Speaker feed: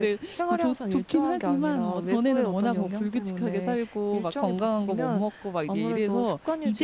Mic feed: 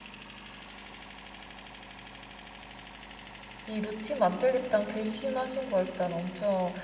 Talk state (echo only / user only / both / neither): user only